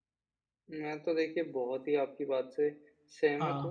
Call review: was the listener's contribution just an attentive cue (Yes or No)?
Yes